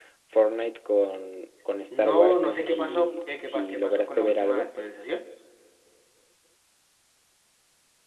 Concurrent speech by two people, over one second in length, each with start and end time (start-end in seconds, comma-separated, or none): 2.0-4.7